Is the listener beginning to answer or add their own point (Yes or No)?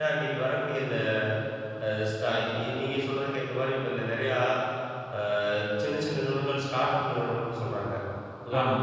No